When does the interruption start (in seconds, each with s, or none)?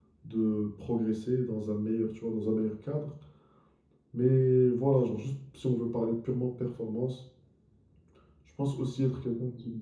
none